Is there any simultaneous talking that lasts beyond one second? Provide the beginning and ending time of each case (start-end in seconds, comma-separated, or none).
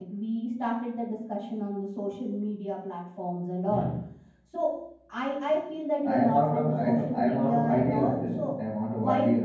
6.1-8.5